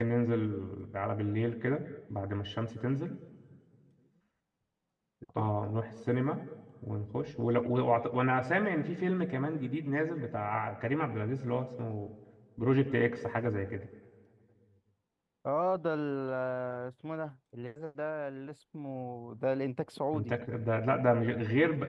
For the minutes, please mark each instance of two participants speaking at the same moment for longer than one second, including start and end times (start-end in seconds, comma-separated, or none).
none